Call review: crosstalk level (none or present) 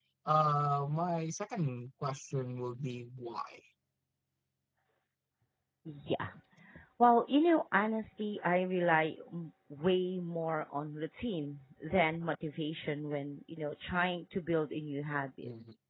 none